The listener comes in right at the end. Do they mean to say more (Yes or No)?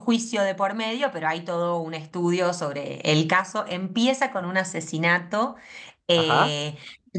No